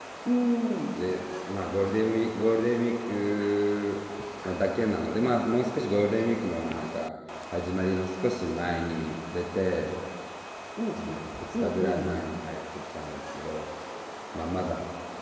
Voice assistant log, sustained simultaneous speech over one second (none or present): none